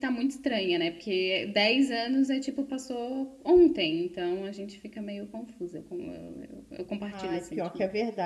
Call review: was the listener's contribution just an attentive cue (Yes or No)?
No